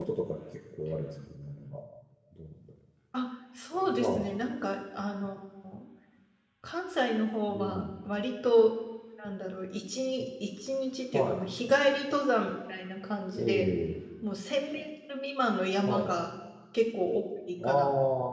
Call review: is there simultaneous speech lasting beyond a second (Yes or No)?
No